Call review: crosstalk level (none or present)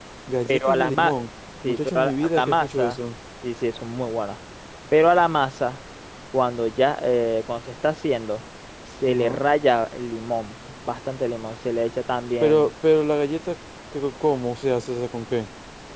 present